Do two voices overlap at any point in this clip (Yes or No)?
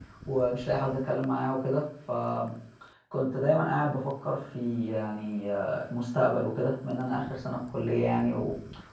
No